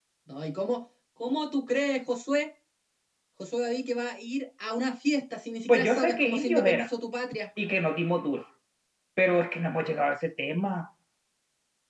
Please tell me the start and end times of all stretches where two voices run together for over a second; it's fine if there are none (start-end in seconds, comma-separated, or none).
5.7-6.9